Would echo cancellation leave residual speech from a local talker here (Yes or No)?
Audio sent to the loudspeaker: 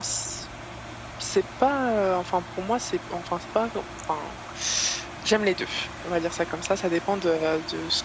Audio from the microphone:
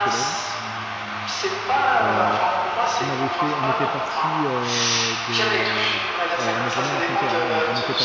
Yes